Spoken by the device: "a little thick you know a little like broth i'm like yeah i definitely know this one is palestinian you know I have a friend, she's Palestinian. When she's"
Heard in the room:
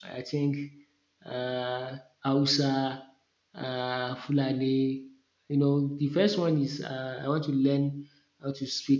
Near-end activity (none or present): present